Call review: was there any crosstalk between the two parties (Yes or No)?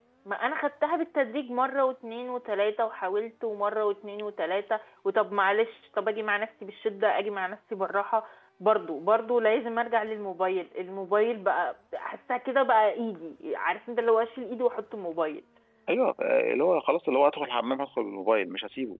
No